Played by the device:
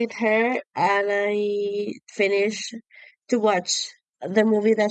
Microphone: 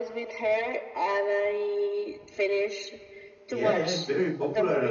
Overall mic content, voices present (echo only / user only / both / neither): both